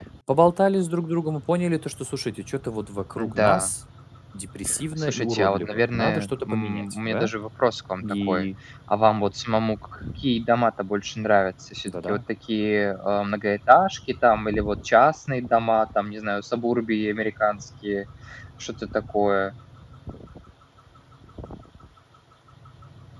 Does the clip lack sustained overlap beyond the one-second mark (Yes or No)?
No